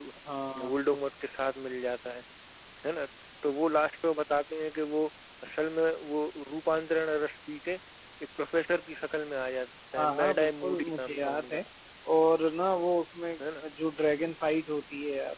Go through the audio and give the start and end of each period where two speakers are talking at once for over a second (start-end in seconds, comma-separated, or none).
10.0-11.6